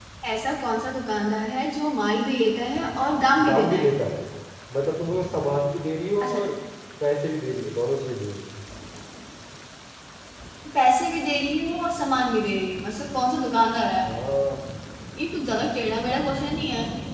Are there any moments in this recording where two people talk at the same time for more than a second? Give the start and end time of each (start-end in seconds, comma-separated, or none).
none